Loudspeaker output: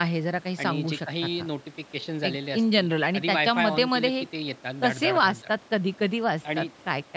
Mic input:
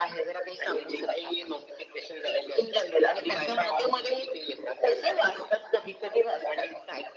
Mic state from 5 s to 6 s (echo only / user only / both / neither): echo only